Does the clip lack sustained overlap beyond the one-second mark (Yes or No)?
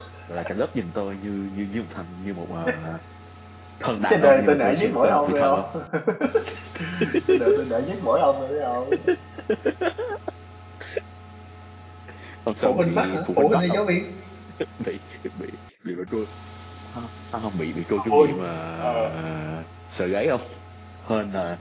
No